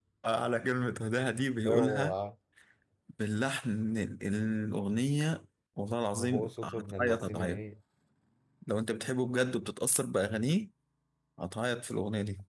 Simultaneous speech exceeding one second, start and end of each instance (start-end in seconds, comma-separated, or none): 6.2-7.6